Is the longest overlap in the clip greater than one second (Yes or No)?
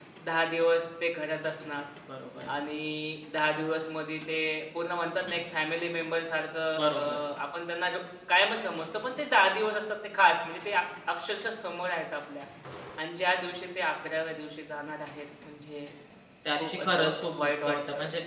Yes